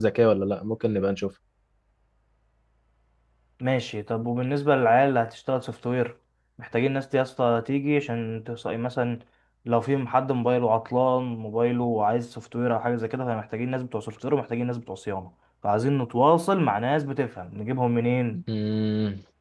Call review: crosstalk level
none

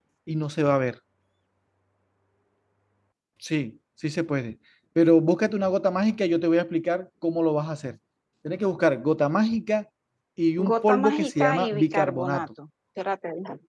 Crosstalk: present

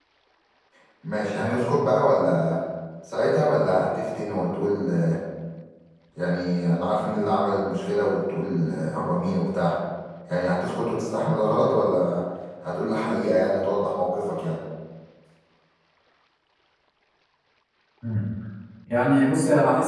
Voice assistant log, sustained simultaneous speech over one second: none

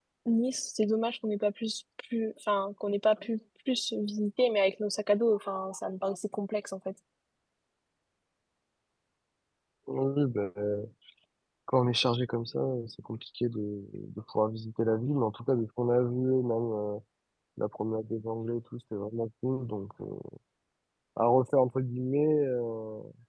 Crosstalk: none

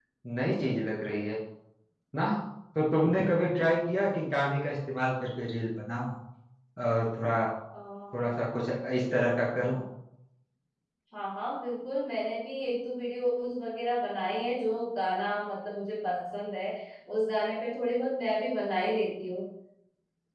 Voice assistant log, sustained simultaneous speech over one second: none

